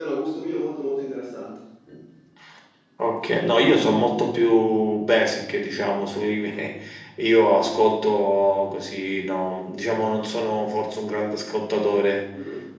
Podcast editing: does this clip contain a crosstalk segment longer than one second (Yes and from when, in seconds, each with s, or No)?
No